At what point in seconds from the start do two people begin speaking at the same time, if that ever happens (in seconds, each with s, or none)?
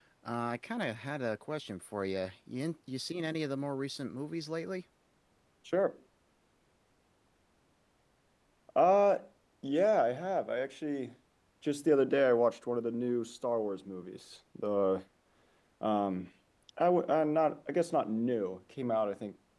none